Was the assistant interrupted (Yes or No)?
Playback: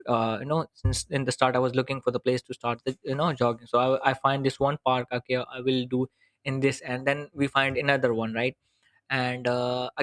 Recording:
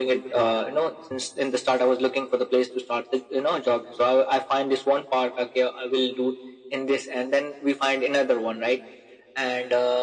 No